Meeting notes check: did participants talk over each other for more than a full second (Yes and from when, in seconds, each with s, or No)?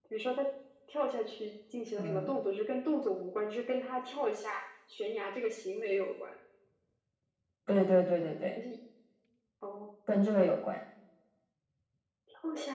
No